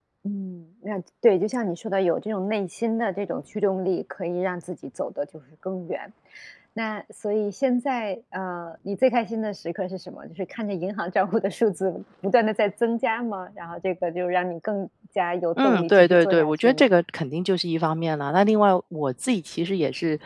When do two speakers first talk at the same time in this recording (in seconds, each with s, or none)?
15.6 s